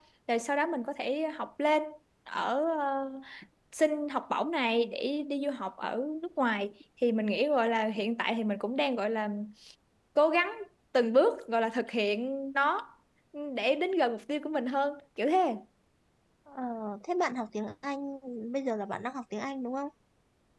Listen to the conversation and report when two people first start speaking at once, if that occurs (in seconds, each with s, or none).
none